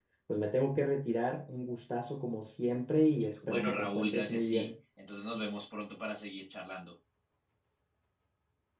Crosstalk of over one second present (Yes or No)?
Yes